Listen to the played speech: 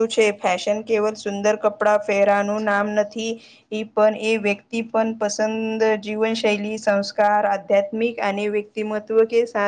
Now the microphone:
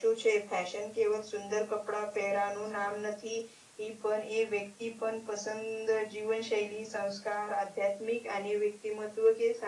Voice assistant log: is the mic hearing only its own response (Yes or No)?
Yes